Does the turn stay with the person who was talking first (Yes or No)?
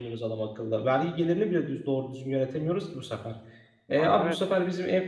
Yes